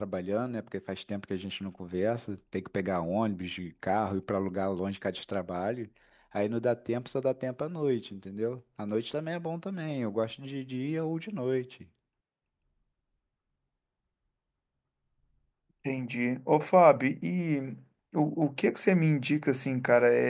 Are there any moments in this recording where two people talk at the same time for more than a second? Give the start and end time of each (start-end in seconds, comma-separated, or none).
none